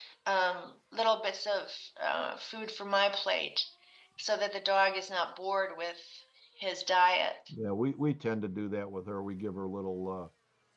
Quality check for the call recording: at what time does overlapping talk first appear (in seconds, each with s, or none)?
none